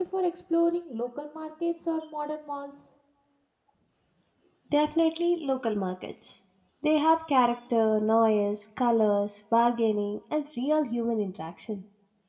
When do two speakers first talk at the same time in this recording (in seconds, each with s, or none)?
none